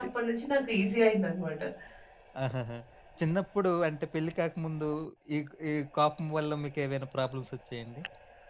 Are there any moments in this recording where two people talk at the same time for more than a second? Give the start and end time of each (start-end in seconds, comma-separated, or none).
none